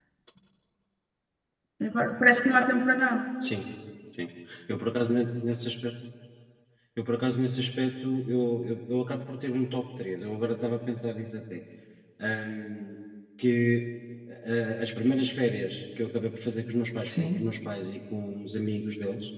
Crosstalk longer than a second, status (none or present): none